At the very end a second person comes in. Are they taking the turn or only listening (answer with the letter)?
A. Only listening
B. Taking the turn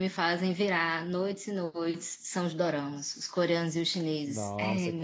B